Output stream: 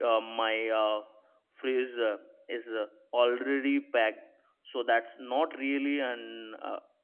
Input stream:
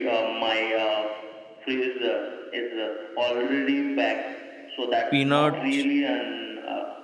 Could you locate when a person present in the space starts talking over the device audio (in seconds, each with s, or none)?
5.1 s